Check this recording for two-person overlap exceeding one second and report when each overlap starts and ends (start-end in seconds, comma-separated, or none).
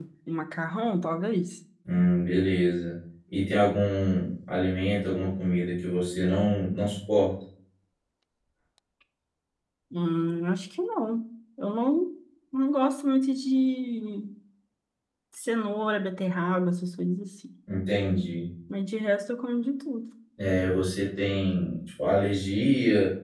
none